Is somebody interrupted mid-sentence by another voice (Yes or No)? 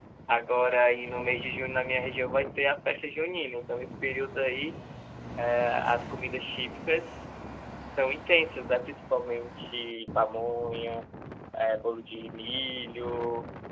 No